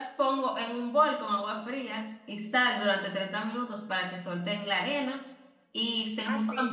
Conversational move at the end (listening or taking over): taking over